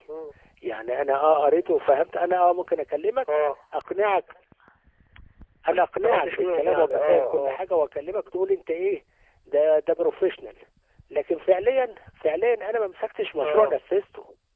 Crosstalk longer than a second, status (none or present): present